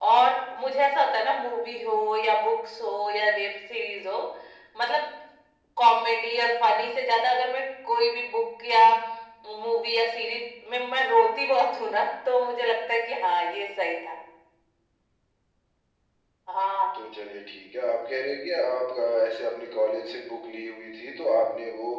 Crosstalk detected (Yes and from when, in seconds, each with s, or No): No